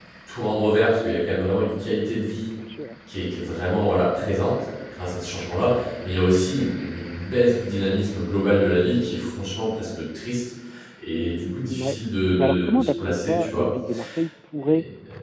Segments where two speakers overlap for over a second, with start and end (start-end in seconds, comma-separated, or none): 12.4-13.7